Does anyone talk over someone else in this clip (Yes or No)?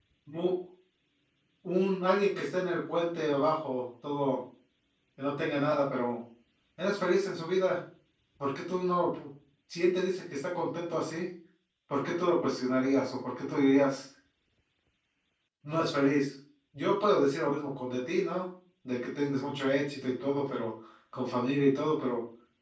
No